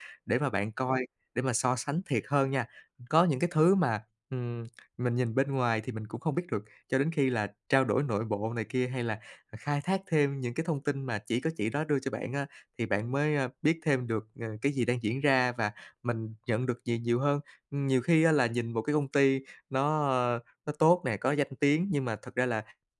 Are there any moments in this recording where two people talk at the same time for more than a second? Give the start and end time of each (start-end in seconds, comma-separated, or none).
none